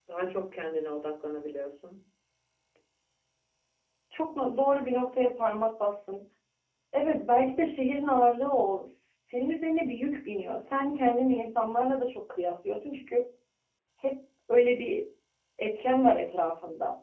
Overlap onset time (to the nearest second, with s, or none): none